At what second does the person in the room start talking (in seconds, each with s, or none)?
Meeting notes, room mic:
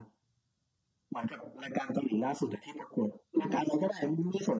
3.3 s